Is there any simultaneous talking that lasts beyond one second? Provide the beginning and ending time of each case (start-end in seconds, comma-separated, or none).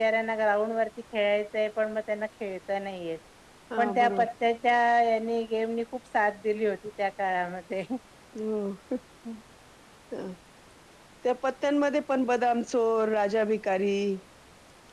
none